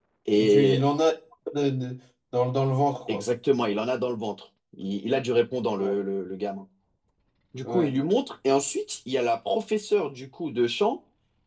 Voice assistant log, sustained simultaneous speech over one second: none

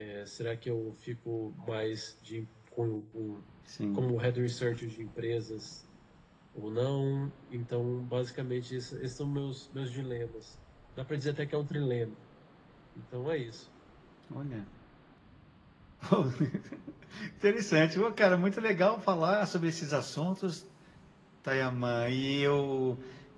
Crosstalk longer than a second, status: none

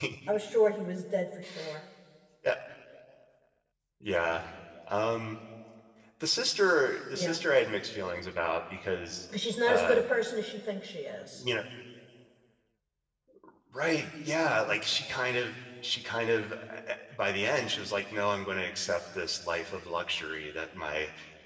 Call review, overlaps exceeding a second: none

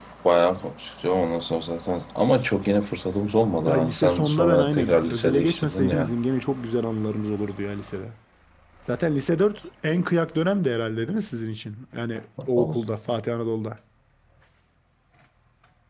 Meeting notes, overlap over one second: present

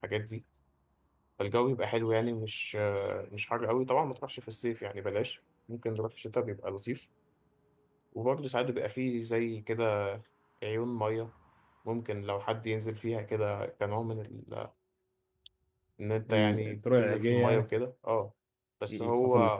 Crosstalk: present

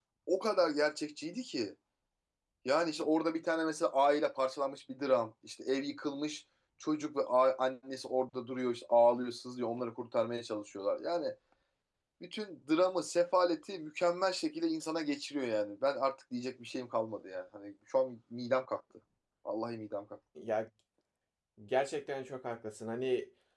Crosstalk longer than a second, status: none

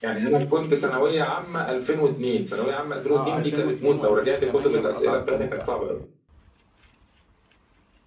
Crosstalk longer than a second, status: present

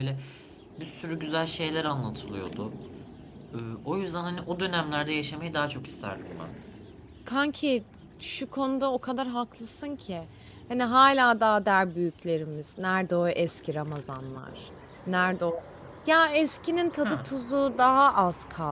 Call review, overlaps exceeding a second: none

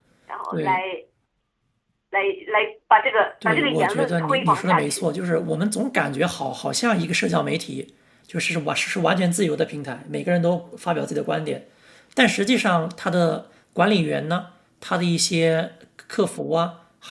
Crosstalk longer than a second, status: present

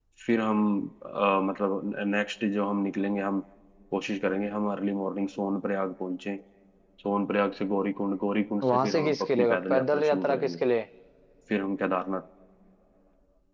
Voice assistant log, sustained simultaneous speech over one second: present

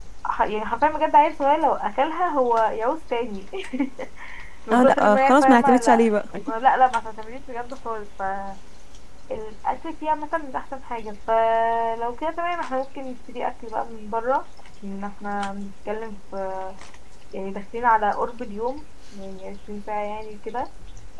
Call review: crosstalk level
present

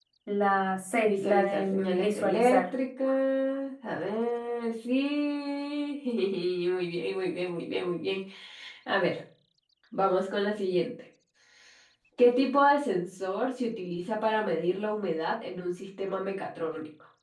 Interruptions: present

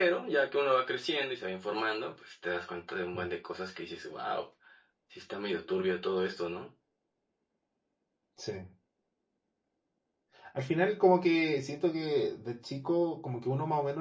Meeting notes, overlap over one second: none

